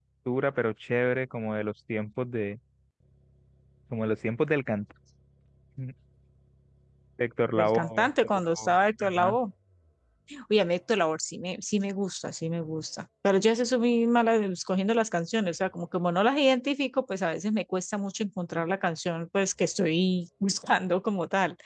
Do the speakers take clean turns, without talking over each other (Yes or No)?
No